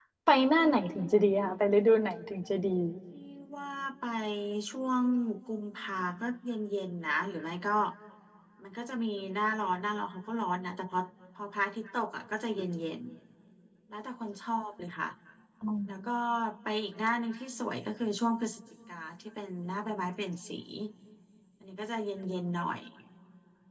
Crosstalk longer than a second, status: none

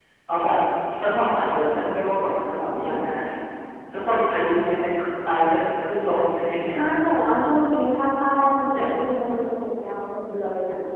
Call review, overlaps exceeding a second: none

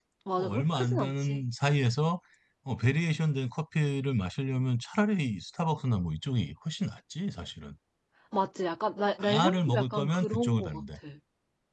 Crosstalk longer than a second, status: present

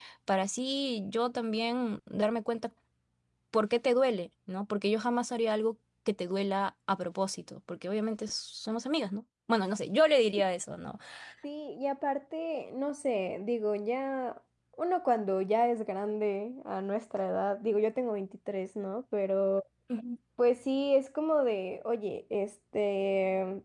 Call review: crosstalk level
none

